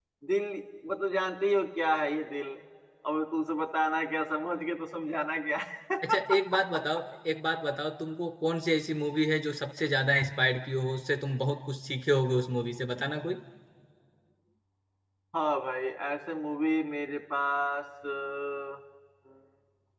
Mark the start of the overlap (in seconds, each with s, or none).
none